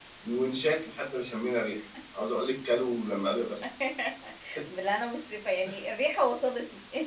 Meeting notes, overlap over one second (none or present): none